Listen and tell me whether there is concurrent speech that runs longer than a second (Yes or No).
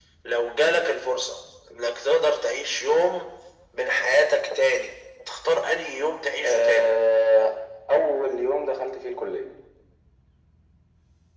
No